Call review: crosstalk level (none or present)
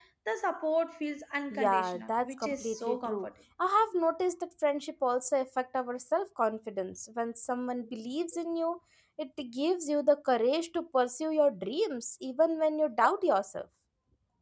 present